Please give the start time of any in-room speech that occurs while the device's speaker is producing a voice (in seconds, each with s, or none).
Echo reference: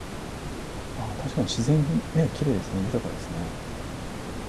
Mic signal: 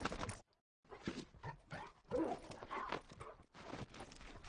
none